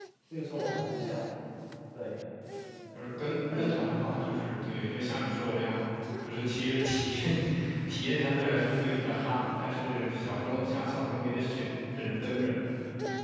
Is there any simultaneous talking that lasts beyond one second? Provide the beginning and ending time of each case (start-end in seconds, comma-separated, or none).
none